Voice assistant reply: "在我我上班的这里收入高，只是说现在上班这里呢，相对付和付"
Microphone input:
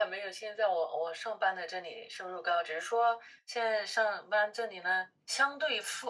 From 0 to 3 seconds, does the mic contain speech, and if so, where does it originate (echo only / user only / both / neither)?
echo only